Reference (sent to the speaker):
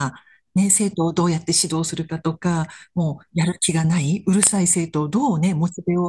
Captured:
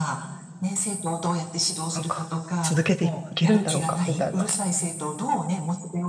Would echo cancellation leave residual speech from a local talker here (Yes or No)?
Yes